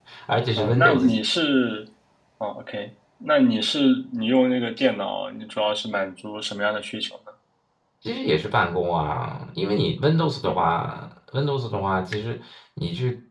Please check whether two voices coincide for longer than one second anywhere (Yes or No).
No